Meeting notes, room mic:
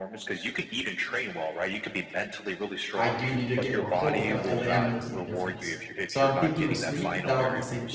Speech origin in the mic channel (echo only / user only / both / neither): both